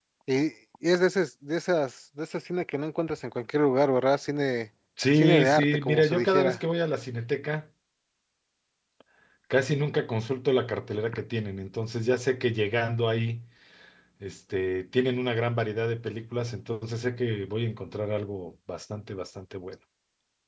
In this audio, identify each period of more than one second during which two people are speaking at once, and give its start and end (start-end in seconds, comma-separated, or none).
5.1-6.6